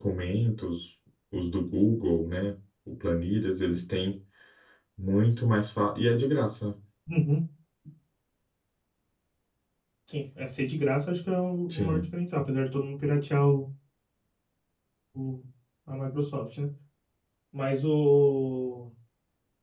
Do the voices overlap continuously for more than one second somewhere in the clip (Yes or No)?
No